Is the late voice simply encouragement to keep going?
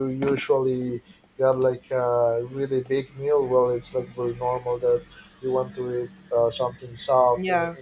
No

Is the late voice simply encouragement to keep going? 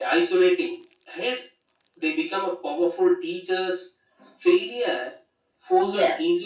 Yes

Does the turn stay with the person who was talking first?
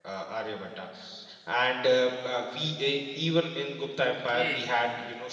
Yes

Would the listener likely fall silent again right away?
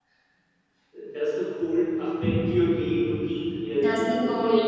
No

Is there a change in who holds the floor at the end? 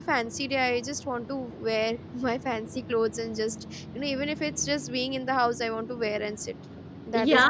Yes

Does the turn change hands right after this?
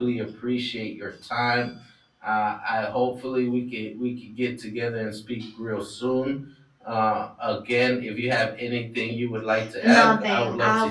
Yes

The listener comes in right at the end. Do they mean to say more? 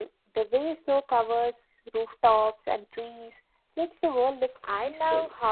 Yes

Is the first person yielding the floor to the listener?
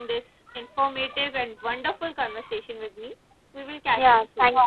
Yes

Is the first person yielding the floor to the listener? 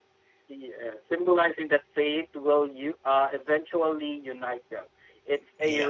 No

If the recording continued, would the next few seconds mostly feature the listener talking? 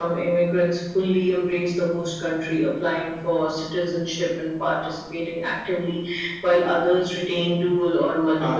Yes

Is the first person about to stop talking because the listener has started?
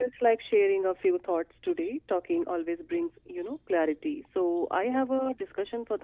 No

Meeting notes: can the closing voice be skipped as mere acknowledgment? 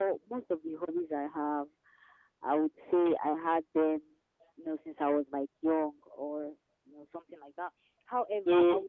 Yes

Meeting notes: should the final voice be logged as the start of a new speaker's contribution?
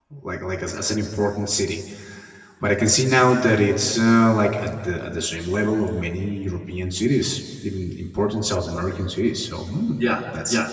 Yes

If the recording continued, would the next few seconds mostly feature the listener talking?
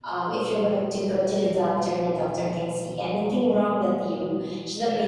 No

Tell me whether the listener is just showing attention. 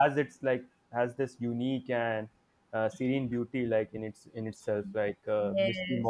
No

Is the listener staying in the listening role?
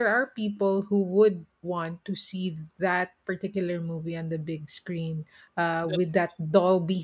Yes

